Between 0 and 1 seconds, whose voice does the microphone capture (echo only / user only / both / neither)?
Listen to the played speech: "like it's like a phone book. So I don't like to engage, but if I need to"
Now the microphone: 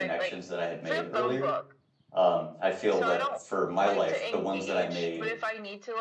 both